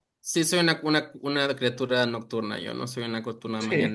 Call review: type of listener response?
taking over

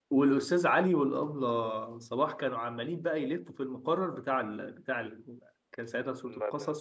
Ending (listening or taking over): listening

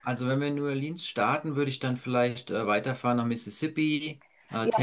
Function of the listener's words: taking over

